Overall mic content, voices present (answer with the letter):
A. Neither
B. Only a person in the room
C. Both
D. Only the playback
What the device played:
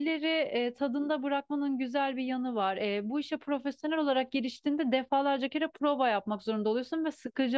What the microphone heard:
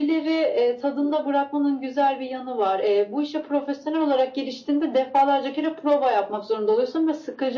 D